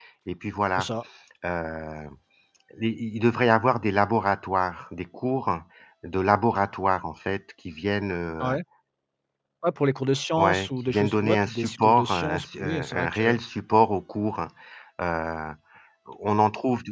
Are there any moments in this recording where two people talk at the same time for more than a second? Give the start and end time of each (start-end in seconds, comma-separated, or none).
10.4-13.3